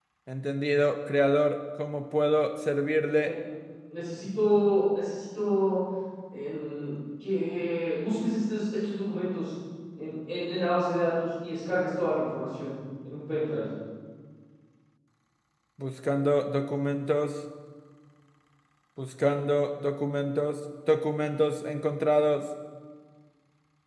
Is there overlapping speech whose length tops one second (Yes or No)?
No